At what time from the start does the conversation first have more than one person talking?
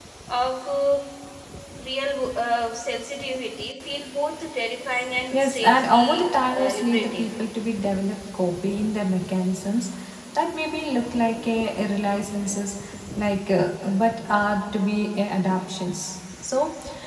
5.3 s

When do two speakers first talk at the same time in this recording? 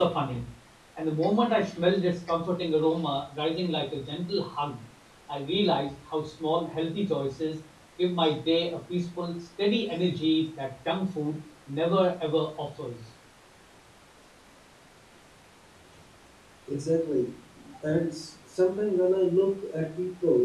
none

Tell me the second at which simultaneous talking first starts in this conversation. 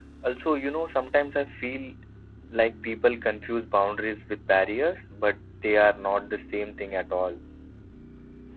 none

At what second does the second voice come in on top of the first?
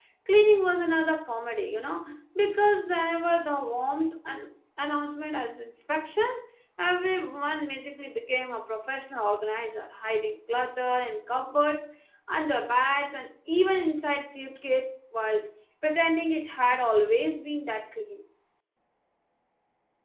none

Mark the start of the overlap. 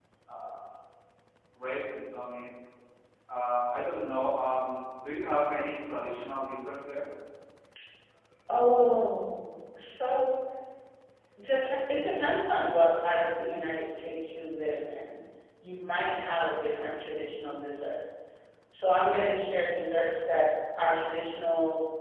none

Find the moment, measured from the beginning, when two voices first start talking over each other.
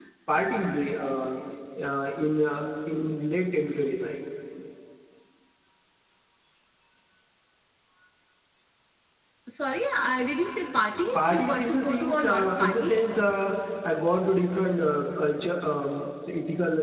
11.2 s

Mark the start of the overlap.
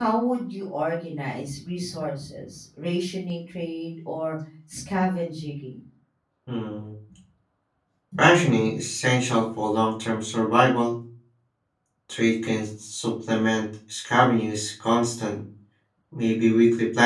none

